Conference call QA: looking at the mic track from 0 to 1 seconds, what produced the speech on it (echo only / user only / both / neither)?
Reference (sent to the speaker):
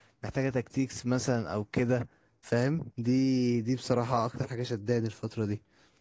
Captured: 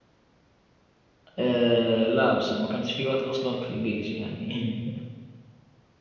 neither